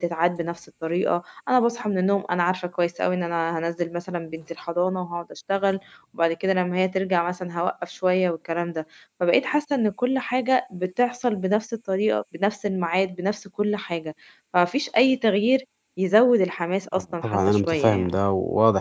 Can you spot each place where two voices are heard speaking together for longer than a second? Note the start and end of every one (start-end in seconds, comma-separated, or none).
16.9-18.2